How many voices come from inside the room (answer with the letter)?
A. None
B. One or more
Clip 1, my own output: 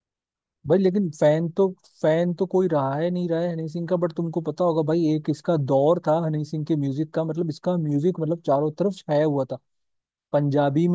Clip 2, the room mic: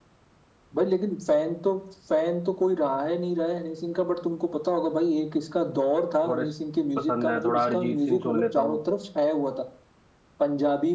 B